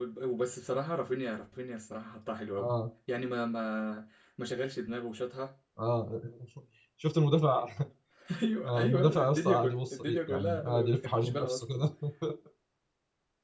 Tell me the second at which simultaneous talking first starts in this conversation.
8.7 s

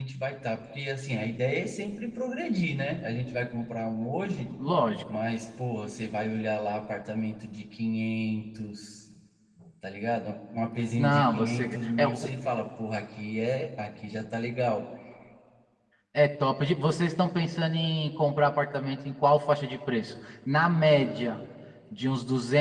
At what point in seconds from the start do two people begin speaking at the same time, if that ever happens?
11.0 s

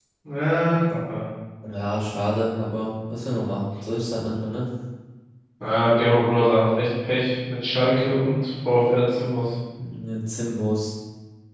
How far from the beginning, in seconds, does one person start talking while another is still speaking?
none

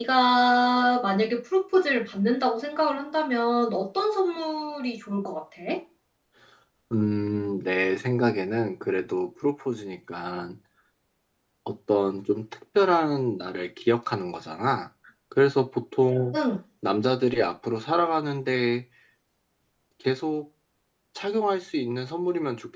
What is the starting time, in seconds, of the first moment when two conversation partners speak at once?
none

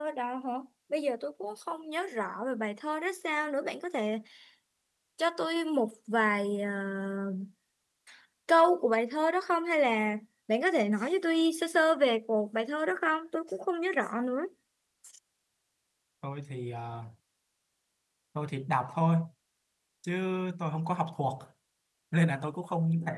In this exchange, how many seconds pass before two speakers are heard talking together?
none

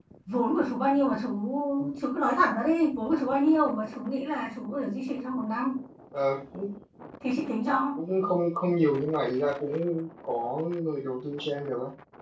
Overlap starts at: none

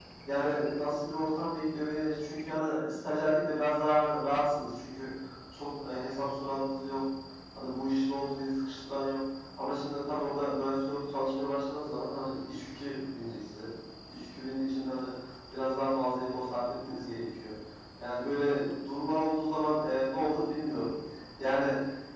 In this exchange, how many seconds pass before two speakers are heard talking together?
none

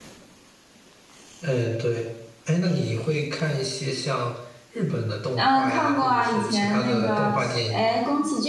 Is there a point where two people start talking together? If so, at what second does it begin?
5.4 s

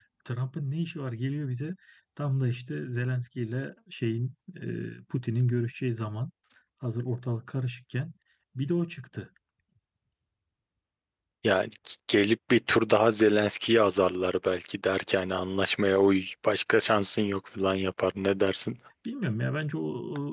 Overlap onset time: none

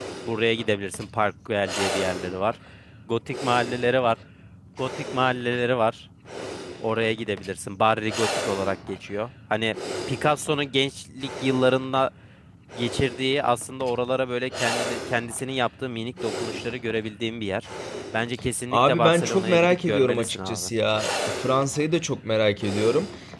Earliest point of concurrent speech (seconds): 18.7 s

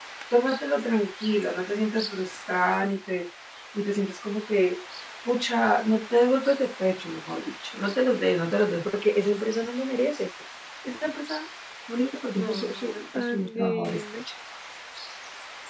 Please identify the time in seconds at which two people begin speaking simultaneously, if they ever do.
12.3 s

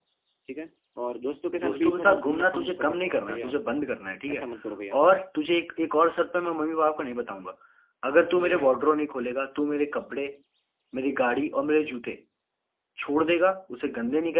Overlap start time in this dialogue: 1.6 s

